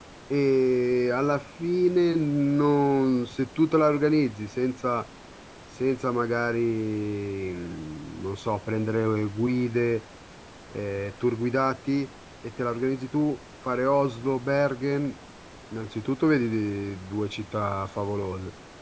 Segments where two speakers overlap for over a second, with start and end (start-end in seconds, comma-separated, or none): none